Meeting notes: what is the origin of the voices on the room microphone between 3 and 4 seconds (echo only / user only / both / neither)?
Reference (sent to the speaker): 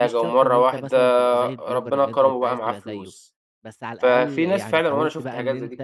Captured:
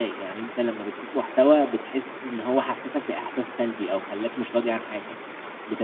user only